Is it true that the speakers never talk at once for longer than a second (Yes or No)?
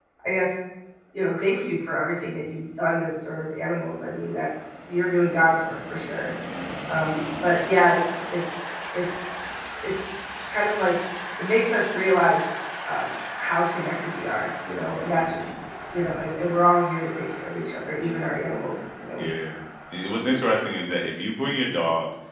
Yes